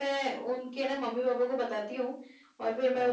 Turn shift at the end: No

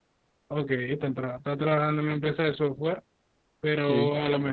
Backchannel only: Yes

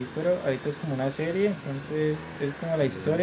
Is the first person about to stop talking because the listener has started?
No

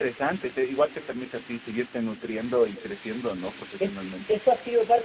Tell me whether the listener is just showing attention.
No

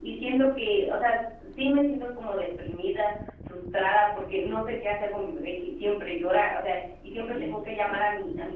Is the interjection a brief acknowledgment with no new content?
Yes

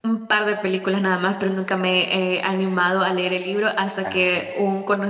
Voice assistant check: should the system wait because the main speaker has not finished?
Yes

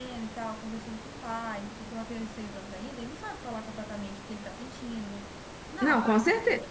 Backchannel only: No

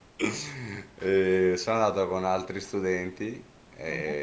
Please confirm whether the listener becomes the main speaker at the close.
No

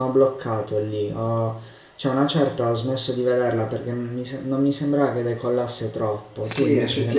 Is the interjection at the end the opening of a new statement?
Yes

